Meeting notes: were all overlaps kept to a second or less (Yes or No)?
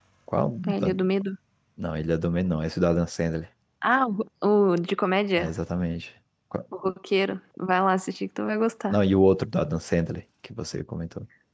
Yes